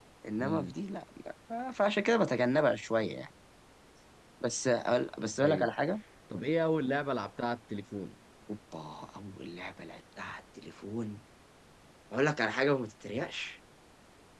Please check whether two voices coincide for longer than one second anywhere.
No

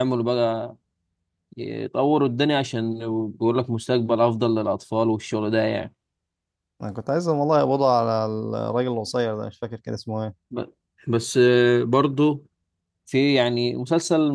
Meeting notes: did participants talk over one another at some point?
No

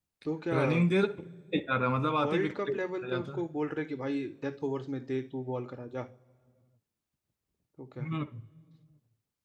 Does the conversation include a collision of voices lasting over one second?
Yes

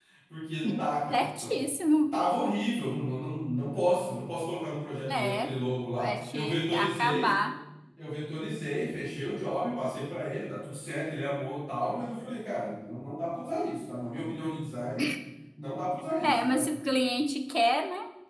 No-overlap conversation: No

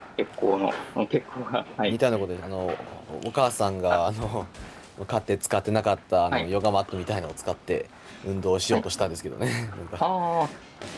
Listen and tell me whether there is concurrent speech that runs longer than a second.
No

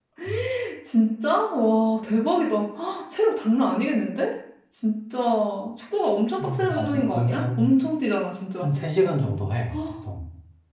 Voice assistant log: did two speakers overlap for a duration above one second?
Yes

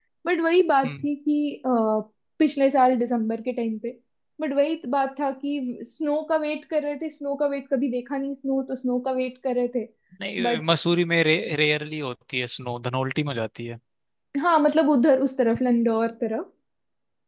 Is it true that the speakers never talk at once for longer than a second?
Yes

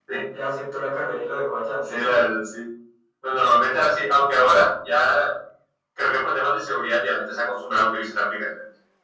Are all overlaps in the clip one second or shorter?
Yes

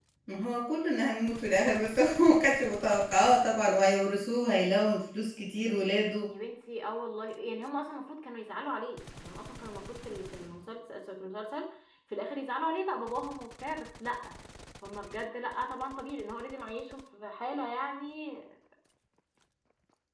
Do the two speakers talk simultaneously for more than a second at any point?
No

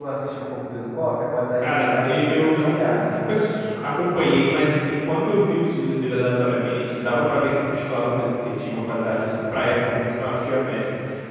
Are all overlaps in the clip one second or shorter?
No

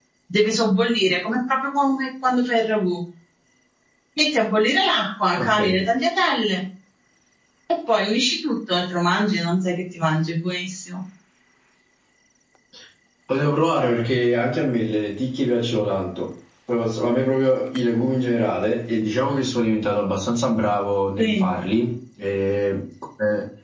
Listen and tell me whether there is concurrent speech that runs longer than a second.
No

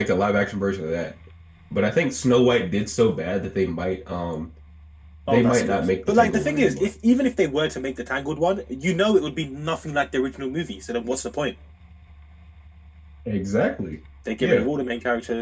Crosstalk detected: Yes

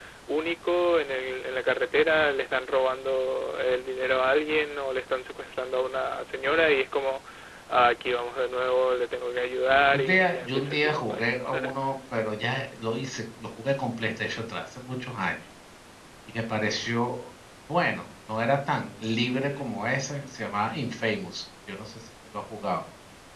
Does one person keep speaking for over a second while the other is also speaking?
Yes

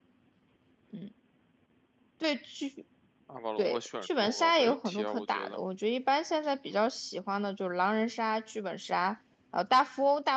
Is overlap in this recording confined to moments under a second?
No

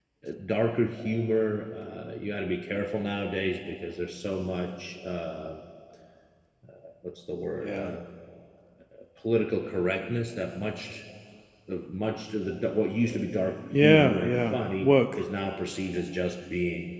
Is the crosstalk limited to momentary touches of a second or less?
No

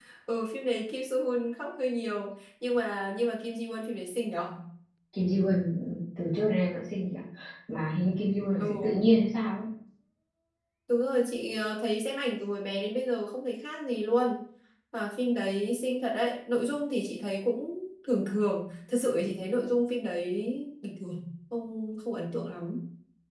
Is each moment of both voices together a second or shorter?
Yes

